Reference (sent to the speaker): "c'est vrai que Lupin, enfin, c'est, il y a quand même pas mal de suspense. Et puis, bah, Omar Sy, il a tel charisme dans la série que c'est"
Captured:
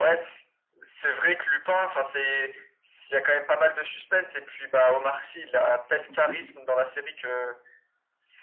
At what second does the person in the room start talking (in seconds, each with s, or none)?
6.1 s